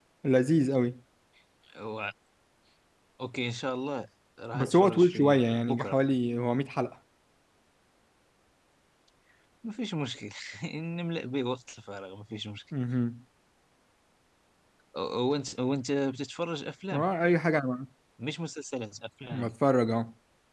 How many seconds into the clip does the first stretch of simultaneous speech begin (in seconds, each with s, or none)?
4.5 s